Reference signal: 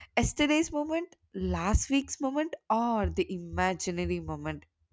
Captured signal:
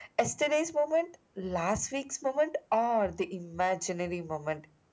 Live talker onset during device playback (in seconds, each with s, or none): none